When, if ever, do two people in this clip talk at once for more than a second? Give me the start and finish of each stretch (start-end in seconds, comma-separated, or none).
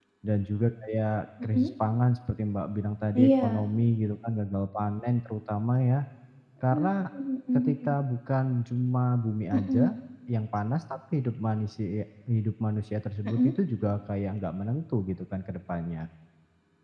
none